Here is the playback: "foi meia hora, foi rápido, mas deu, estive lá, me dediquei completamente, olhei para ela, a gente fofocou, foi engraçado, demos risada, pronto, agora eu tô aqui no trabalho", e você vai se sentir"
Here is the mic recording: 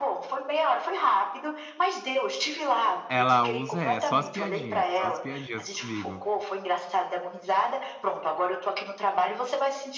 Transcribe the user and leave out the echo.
ela usa é, só as piadinhas, só as piadinhas comigo.

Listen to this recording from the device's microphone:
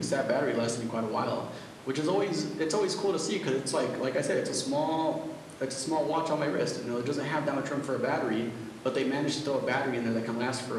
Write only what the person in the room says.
none

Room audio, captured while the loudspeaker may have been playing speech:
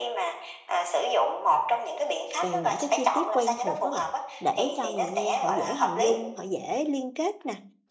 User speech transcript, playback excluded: về những cái chi tiết quen thuộc các bạn, để cho người nghe họ dễ hình dung, họ dễ liên kết nè.

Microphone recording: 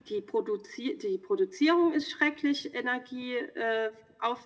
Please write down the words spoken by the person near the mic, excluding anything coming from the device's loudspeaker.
none

